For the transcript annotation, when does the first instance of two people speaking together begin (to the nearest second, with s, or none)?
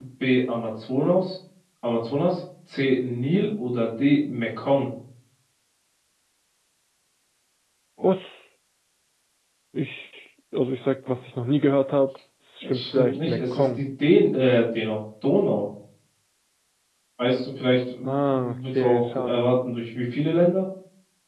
13 s